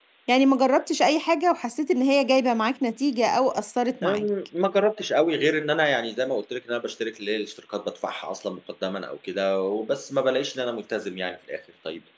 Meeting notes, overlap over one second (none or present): none